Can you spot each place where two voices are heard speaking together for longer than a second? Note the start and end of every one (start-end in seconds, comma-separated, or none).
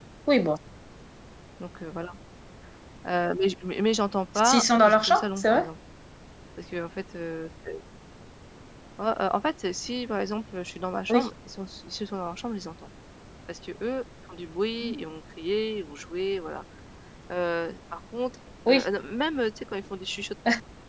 4.3-5.6